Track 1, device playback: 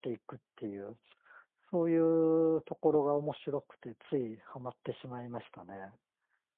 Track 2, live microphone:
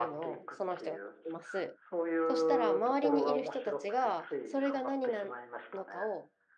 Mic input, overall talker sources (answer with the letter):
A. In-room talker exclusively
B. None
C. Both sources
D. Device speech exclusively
C